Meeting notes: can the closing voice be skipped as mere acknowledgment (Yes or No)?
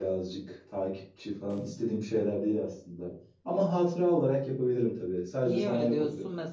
No